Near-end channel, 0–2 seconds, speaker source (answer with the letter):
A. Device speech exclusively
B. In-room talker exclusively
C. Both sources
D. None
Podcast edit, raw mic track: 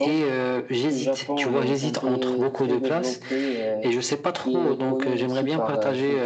C